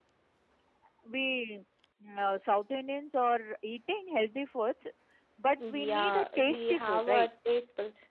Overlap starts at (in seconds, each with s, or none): 5.7 s